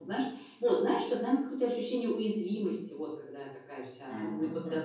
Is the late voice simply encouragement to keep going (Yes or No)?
Yes